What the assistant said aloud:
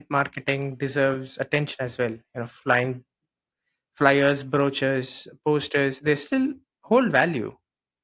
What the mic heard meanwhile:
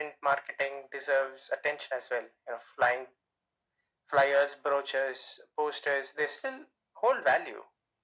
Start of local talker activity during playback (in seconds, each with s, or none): none